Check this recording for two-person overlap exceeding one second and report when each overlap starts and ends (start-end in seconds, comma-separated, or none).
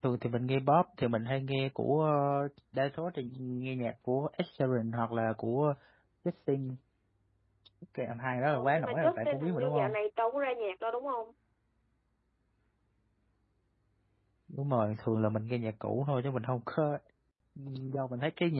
8.5-9.9